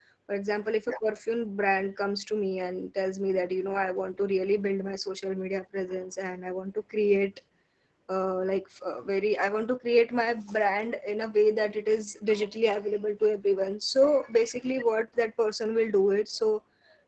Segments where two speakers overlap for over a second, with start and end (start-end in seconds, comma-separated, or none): none